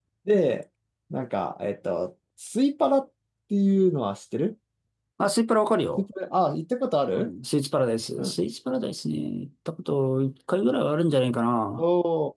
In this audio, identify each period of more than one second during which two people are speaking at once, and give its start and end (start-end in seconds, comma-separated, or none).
none